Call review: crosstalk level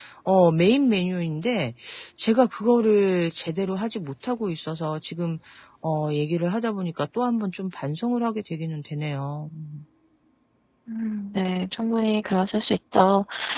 none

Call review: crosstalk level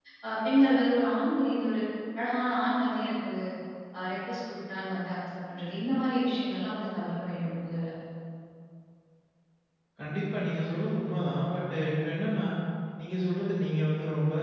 none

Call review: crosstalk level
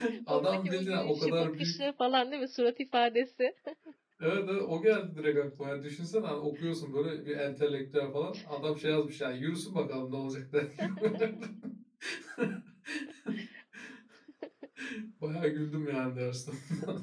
present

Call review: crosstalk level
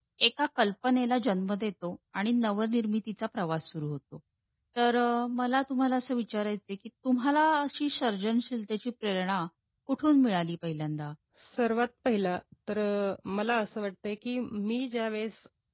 none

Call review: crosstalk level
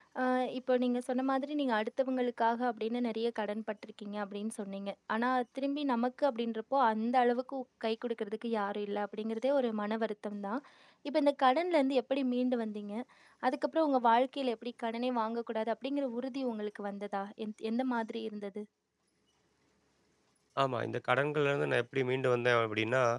none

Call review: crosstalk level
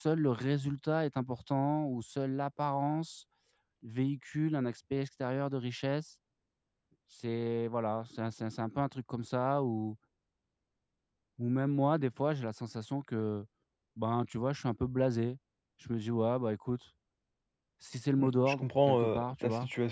present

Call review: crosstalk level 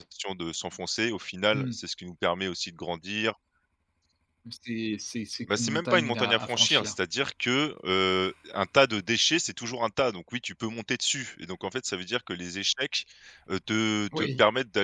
present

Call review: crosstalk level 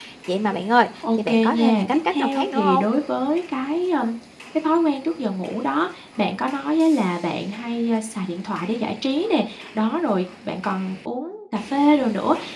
present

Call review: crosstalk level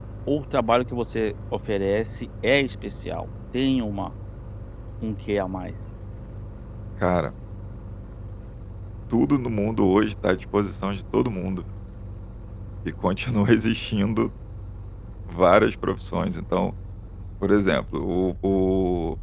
none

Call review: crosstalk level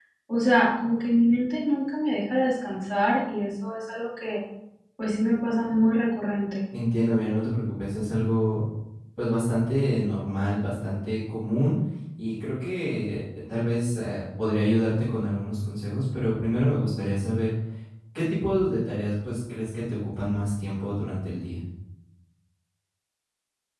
none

